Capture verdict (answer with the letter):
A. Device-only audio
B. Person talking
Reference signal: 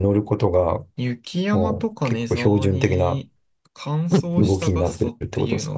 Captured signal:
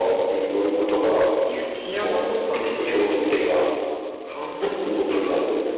A